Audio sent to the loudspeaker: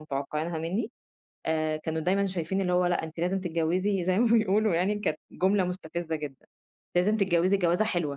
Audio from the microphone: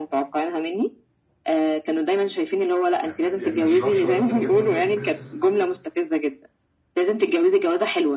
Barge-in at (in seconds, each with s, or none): 3.0 s